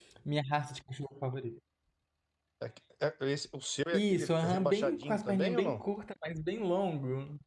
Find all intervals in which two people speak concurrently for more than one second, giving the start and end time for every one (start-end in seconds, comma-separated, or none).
3.9-5.8